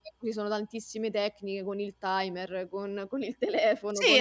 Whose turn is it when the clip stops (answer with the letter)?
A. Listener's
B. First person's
A